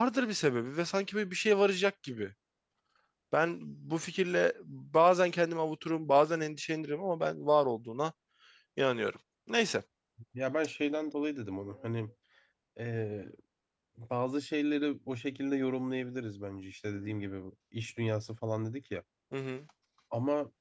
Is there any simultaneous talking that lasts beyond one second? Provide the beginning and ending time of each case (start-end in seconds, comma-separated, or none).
none